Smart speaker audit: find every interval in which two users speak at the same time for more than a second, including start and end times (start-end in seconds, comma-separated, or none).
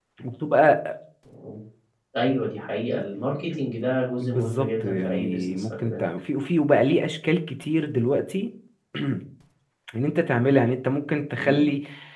4.2-6.0